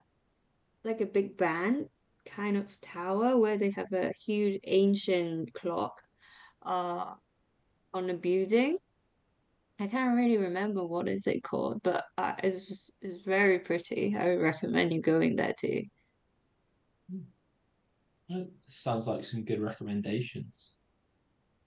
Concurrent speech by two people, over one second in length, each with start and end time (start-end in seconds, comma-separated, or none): none